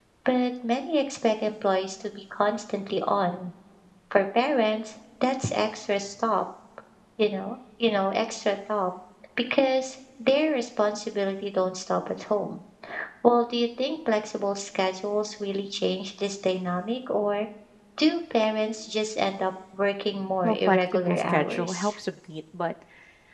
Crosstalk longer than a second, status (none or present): present